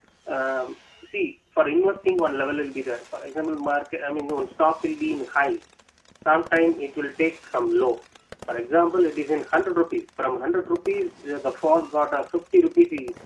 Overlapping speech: No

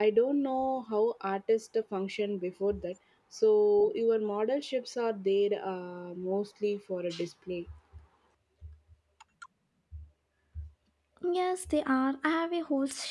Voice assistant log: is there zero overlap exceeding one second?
Yes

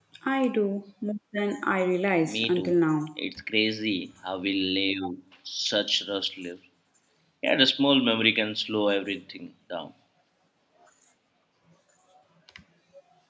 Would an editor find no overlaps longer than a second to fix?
Yes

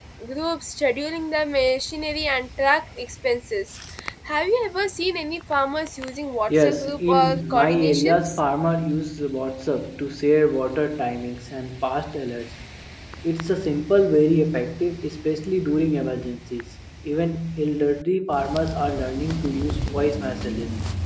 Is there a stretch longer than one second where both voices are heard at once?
Yes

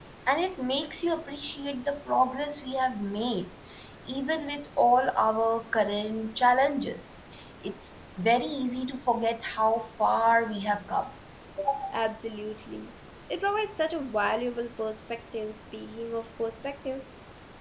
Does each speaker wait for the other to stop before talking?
Yes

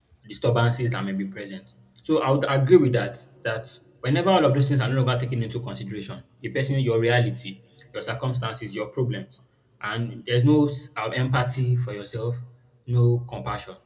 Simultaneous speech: No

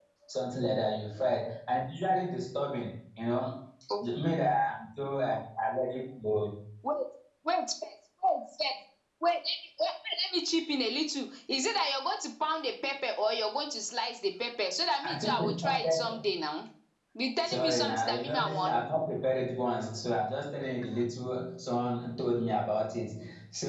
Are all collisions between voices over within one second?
No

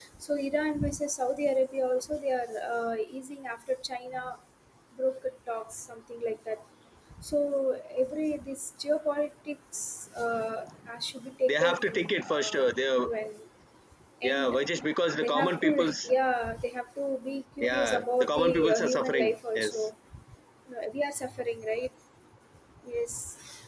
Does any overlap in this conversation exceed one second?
Yes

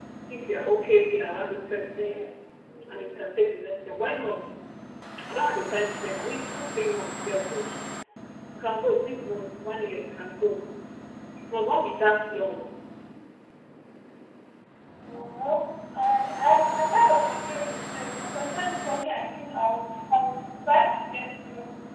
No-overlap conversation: Yes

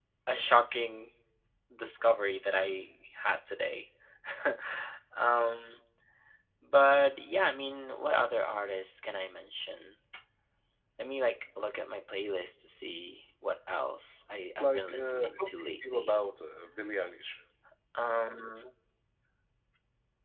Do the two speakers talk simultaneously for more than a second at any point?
Yes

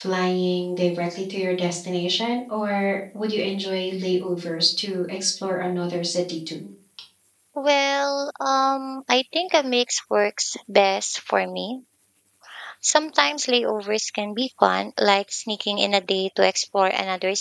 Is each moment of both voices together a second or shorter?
Yes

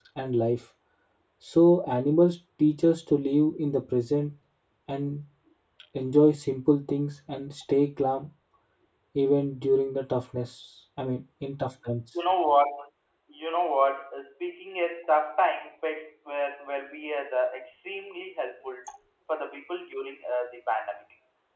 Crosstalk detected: No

